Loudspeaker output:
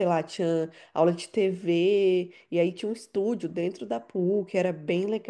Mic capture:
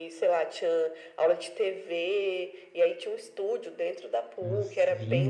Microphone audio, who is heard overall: both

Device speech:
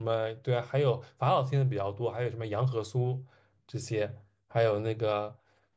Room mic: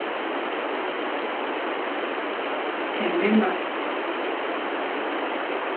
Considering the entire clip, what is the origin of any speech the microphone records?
user only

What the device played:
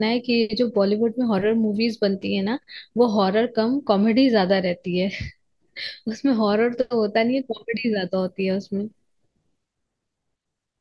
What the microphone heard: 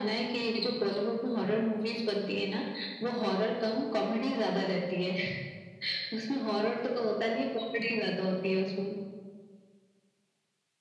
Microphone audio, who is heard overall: echo only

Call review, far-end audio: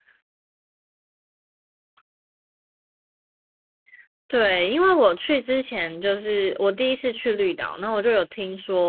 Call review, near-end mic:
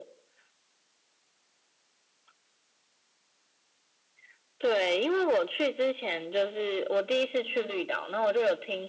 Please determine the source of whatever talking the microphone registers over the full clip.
echo only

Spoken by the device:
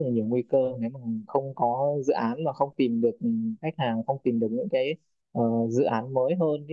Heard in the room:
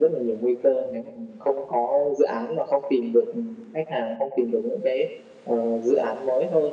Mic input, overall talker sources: echo only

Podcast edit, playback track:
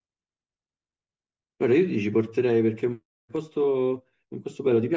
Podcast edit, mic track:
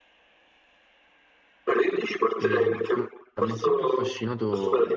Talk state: both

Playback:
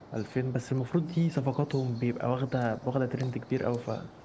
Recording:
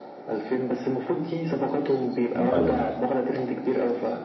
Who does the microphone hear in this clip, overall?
both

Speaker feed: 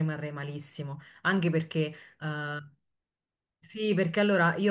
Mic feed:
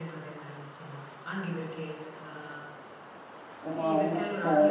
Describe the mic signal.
both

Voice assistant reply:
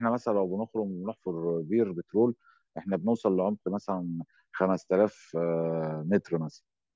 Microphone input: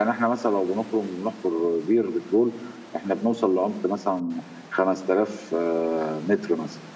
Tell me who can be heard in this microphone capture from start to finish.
echo only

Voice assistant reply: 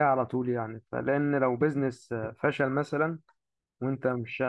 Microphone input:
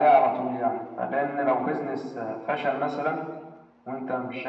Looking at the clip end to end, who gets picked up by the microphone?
echo only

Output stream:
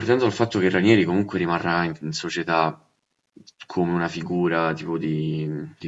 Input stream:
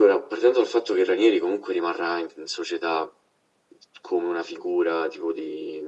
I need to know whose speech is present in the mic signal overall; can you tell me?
echo only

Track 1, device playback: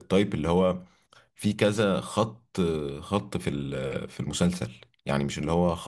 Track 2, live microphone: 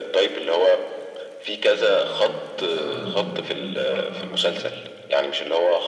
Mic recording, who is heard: both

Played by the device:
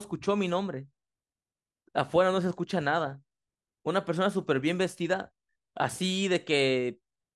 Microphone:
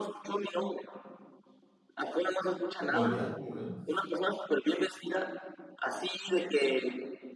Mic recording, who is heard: both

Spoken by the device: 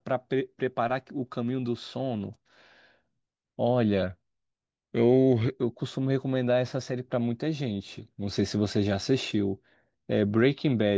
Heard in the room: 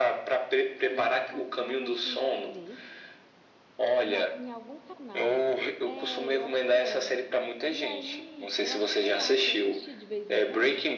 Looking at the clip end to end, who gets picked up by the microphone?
both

